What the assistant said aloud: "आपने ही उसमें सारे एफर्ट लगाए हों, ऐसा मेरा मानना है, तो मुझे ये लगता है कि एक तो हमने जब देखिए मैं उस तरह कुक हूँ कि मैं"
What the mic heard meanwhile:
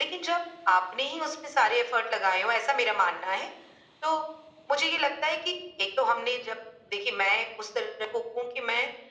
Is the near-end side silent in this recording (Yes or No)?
Yes